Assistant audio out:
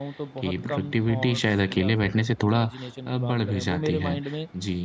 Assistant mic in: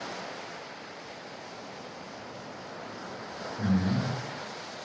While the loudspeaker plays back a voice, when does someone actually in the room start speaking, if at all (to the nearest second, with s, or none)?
4 s